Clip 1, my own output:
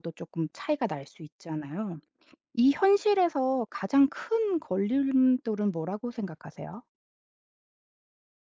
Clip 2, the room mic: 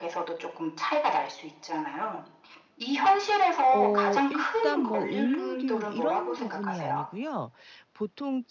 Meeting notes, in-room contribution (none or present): present